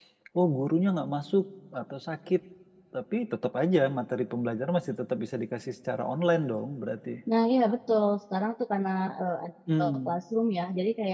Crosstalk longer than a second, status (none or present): none